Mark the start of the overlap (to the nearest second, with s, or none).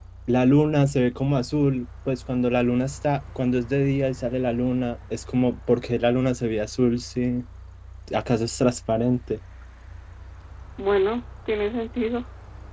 none